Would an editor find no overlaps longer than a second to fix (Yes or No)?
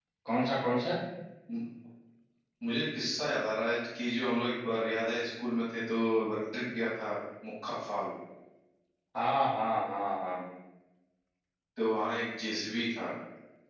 Yes